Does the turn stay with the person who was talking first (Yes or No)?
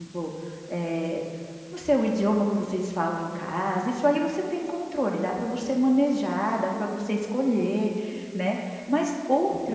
Yes